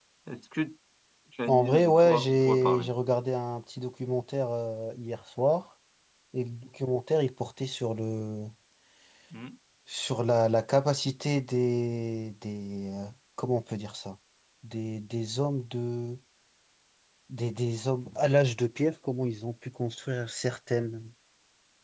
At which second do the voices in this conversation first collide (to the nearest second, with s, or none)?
1 s